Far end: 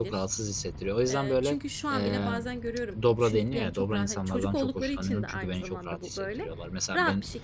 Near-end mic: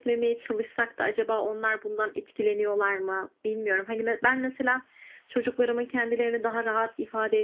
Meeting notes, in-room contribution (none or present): present